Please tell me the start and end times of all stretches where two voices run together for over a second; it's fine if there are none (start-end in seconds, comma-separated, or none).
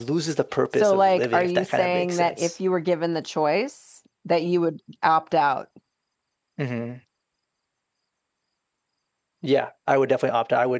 0.8-2.5